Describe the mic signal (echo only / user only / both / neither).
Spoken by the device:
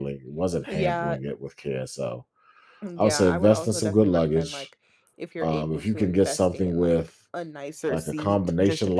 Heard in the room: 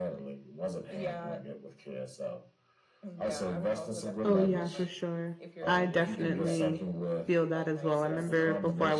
both